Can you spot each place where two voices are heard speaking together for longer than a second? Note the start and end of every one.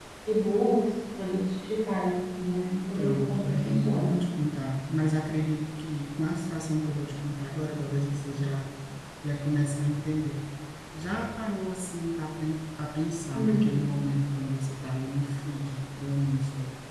3.0-4.2

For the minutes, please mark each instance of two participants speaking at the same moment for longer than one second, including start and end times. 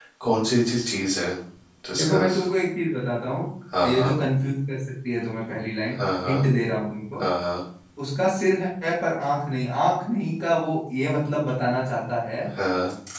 none

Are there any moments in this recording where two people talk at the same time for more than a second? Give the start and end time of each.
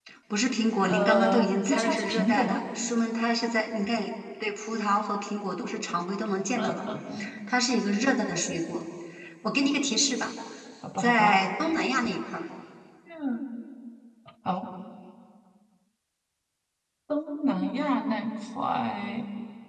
0.9-2.6

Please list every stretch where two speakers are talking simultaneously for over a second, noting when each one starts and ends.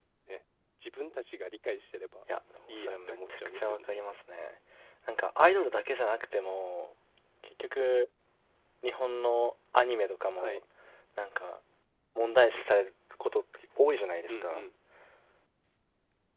2.7-3.9

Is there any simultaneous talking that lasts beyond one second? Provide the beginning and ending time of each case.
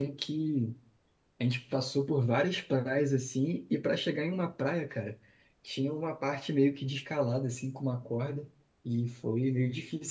none

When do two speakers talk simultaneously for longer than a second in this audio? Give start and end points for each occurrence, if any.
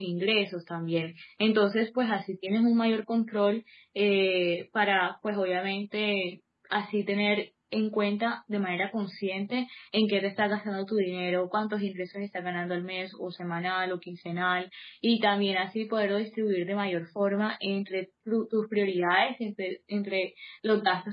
none

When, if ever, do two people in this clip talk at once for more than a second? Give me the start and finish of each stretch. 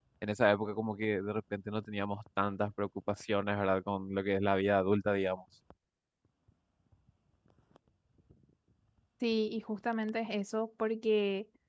none

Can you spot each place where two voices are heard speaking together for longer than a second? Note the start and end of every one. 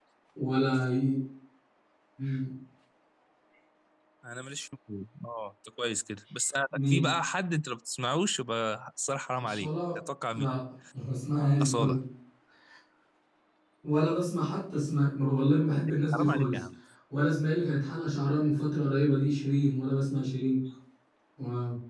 none

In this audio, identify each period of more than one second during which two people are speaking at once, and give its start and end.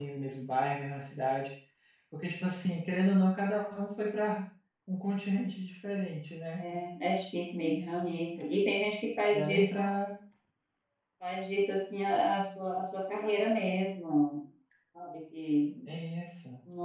none

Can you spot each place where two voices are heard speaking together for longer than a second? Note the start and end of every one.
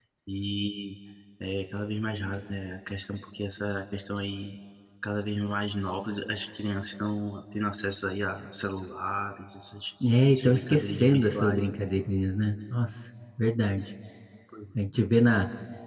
10.4-11.6

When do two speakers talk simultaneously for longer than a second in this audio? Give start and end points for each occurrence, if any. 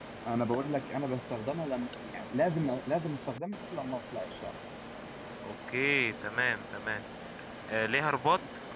none

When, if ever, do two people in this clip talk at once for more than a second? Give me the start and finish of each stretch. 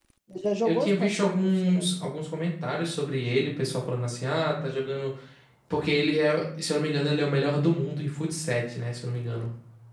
0.6-1.9

